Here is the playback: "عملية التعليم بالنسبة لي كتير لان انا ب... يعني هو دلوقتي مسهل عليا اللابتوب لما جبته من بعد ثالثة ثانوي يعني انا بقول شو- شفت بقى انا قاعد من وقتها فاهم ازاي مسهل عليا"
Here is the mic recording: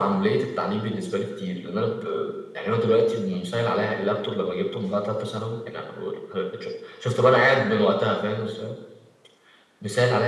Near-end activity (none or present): none